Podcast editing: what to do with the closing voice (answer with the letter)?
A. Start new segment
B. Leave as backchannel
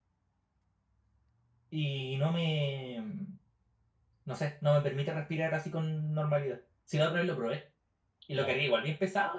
B